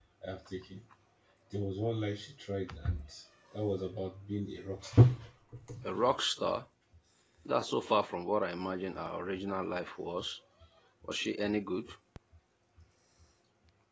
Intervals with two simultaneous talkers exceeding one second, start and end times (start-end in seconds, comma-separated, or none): none